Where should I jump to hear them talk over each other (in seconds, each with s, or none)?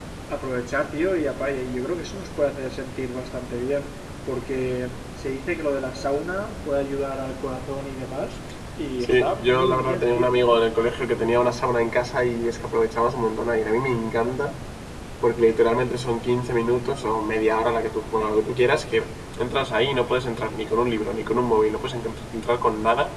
9.0 s